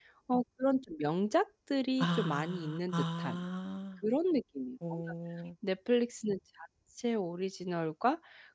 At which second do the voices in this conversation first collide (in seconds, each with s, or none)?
2.0 s